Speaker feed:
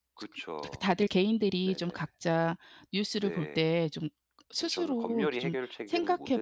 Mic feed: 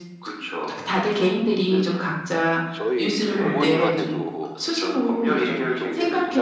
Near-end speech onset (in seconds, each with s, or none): 0.9 s